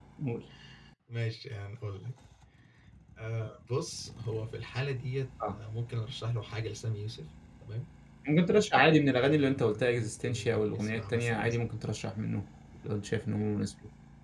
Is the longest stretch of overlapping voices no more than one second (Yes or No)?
No